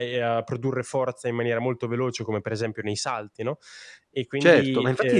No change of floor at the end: No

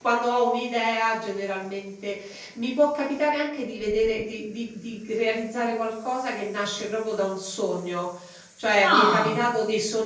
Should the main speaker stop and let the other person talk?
No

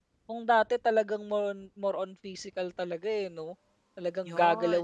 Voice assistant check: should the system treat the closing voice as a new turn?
No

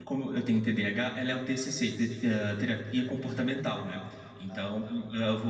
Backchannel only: Yes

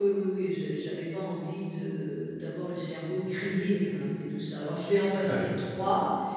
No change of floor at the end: Yes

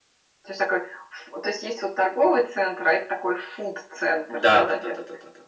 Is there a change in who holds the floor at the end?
Yes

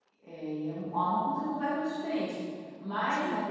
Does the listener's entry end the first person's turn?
No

